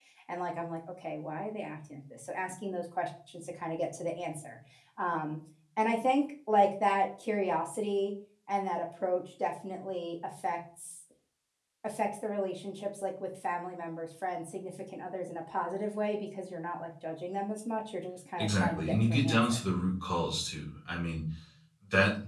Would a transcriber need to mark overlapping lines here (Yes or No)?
Yes